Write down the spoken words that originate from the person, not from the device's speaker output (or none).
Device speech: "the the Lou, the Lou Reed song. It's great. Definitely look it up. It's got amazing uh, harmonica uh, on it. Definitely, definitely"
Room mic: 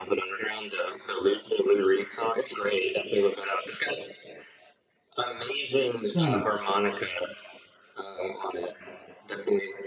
Right.